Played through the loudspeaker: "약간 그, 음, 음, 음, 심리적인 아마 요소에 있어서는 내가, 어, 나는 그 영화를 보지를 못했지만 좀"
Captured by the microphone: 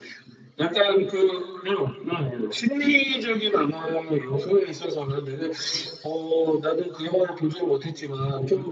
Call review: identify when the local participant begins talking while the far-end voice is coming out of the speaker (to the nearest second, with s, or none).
none